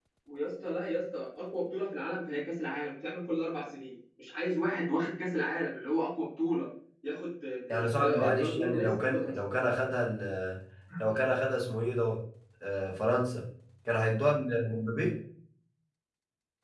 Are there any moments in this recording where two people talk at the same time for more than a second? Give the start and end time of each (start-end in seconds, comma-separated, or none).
7.7-9.3